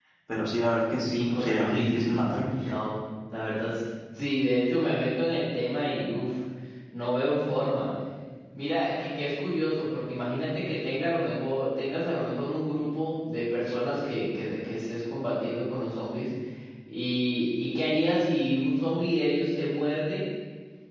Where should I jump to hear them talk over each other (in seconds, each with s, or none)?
1.0 s